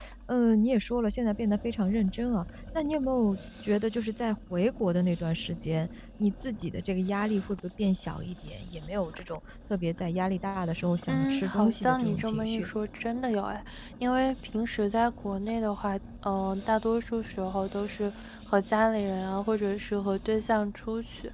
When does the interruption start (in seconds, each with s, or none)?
11.1 s